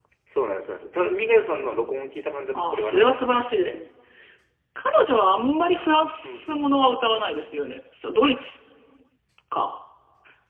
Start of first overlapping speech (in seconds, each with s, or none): 2.6 s